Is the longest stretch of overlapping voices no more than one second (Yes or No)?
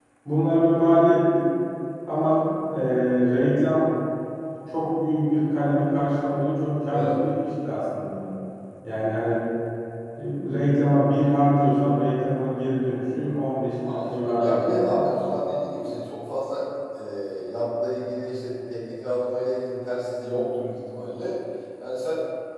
No